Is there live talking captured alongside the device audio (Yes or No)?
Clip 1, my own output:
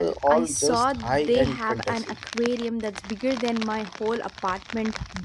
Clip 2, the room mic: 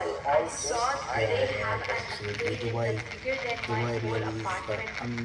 Yes